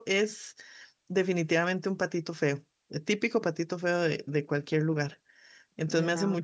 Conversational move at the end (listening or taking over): listening